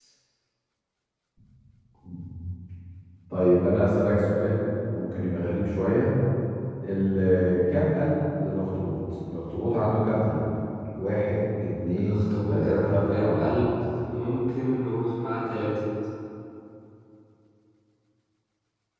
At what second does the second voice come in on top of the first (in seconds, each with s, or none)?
11.9 s